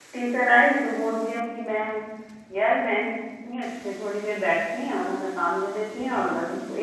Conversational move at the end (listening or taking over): listening